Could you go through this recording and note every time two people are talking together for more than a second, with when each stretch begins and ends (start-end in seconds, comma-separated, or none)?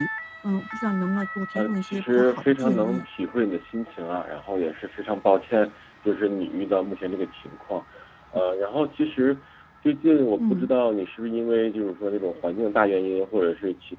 1.5-3.0